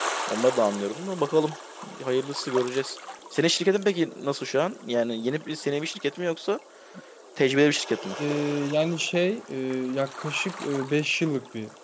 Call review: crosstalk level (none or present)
none